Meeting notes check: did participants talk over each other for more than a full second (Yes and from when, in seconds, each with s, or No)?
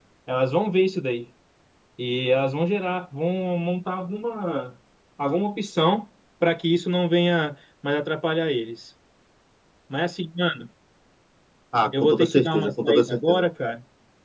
Yes, from 12.0 s